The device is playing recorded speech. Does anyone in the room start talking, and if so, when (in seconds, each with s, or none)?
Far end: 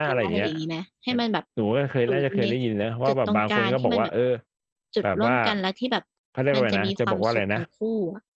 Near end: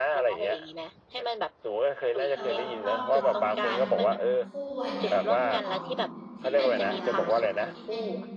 2.2 s